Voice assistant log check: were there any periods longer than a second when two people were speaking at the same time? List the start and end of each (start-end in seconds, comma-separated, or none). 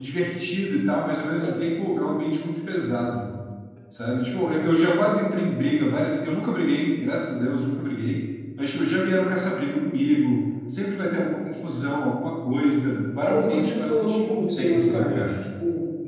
13.2-15.4